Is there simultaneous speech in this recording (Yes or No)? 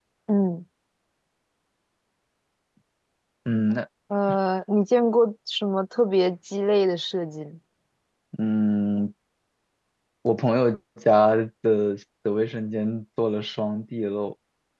No